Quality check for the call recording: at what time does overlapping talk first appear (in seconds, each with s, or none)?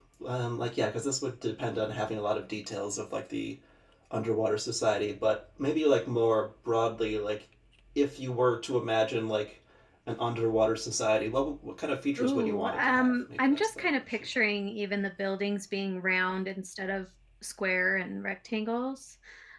12.2 s